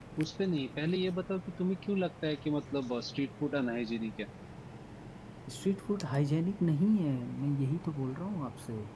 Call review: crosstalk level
none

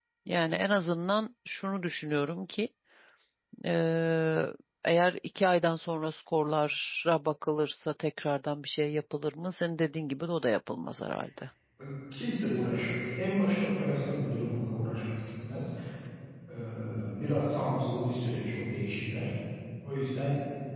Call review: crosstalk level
none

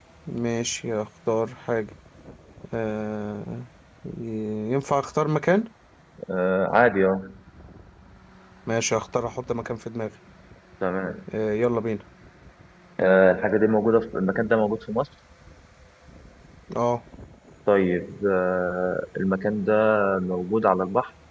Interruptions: none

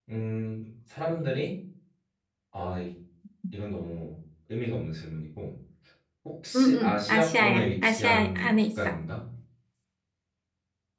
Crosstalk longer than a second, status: present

